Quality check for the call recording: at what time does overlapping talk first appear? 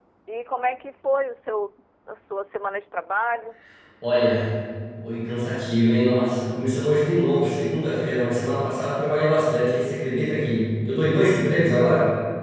none

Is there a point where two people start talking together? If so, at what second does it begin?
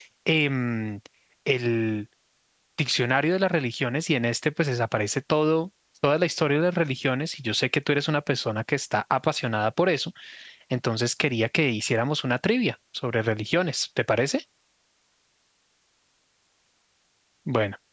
none

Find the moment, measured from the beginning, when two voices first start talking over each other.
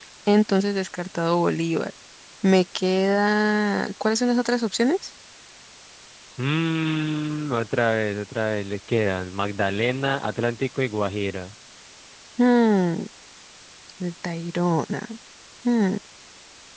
none

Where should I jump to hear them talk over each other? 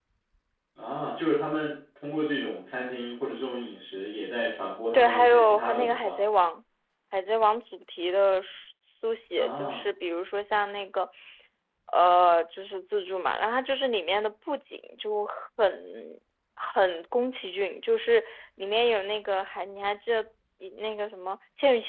4.9 s

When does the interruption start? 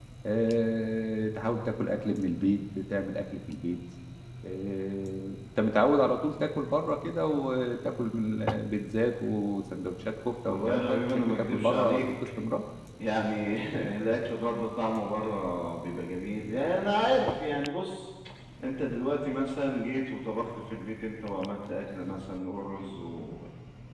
10.5 s

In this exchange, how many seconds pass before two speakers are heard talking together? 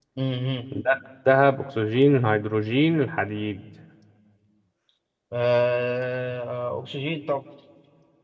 none

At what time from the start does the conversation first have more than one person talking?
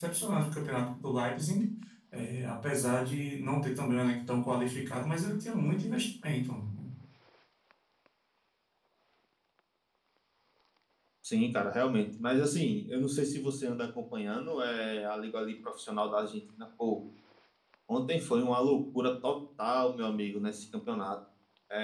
none

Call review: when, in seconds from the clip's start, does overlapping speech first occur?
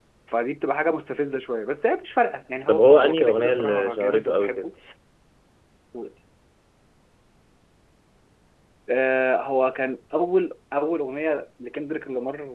2.7 s

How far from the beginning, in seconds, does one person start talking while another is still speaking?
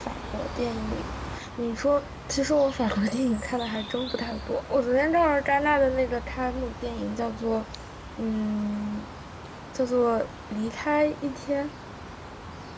none

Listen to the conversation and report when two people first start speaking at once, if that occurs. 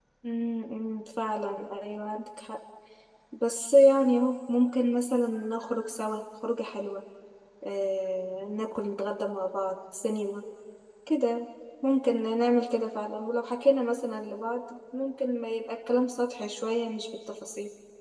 none

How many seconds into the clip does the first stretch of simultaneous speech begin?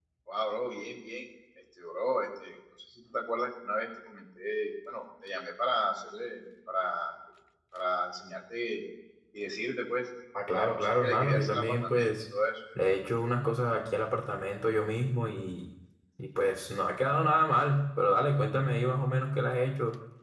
10.3 s

